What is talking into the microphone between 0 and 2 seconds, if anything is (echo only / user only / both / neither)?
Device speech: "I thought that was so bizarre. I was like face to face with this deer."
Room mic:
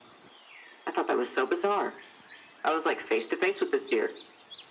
echo only